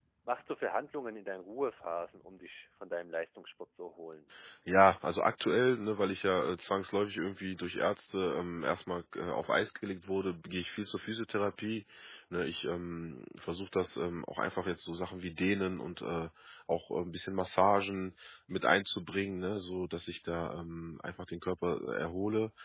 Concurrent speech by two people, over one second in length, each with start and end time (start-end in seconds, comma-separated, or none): none